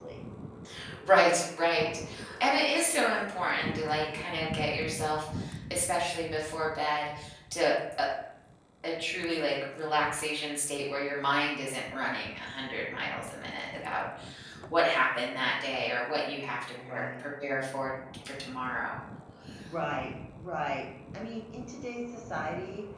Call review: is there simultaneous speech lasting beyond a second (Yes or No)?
No